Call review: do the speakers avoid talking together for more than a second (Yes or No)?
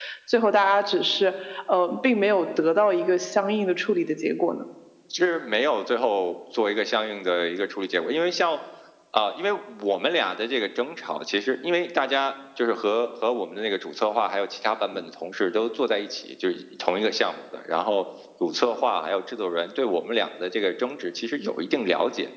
Yes